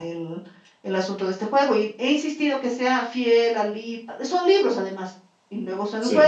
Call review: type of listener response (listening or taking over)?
listening